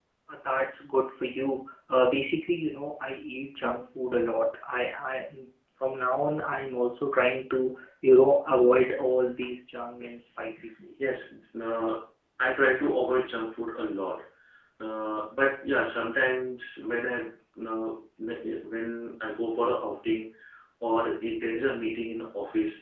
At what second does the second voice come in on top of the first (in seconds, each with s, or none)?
none